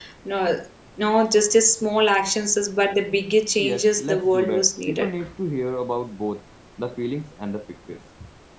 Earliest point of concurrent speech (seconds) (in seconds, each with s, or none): 3.6 s